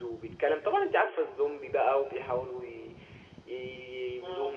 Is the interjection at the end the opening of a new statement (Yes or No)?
No